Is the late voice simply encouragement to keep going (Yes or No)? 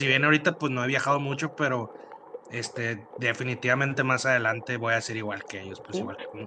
No